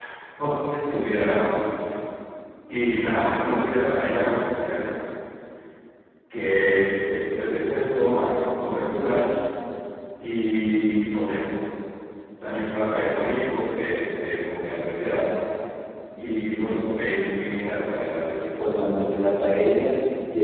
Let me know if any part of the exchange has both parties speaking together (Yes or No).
No